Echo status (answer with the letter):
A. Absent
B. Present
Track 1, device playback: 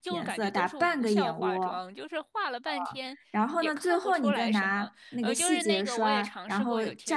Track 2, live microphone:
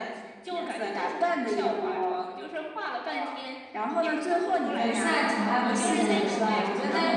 B